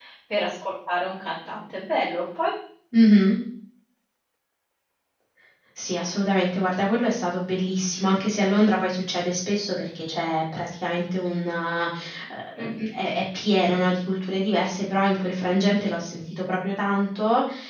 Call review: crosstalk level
none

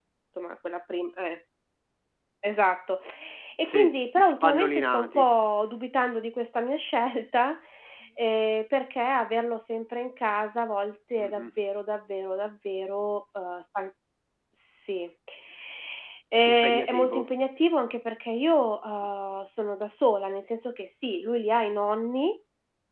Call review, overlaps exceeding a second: present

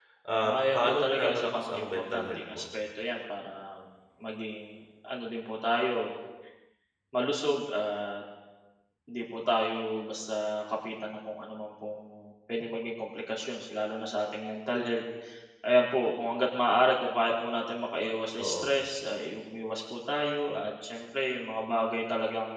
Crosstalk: present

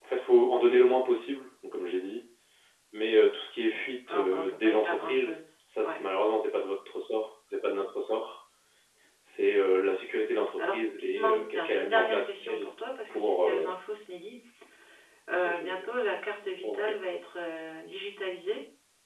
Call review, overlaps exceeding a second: present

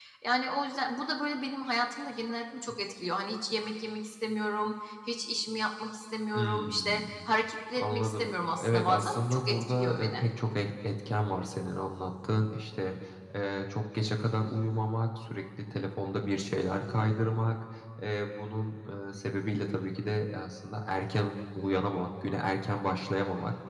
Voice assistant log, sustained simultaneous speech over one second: present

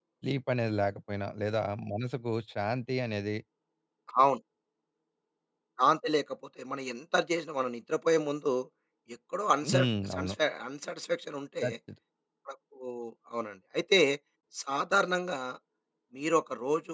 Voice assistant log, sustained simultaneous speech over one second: none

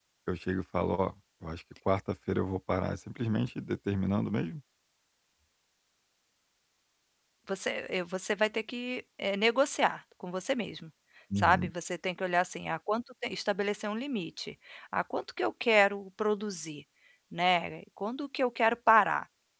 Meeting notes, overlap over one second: none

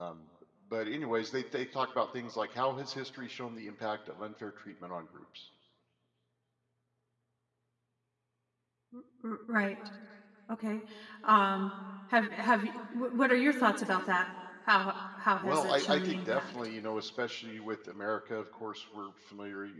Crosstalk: present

